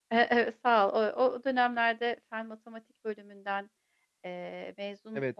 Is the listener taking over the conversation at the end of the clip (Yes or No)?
Yes